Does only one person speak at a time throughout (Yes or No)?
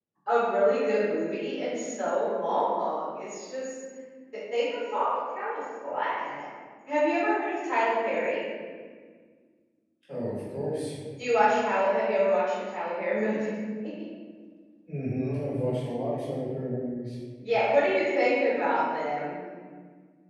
Yes